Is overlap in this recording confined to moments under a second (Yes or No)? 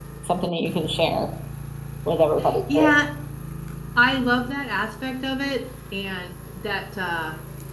Yes